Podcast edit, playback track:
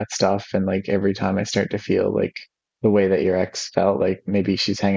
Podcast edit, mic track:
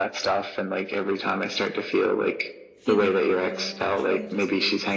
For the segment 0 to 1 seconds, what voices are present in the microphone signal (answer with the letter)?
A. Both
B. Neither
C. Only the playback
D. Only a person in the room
C